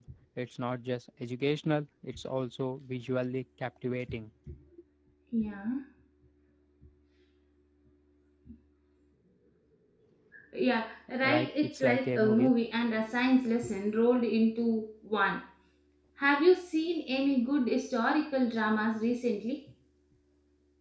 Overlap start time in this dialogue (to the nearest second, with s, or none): 11 s